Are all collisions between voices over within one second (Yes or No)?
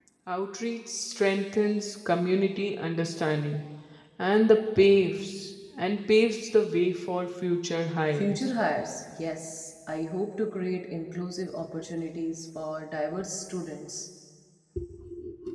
Yes